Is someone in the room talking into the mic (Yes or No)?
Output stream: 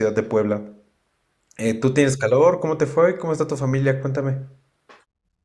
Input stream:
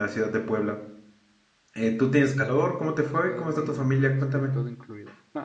Yes